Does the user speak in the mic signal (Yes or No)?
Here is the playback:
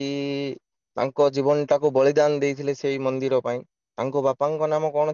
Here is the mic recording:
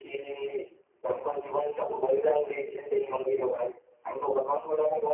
No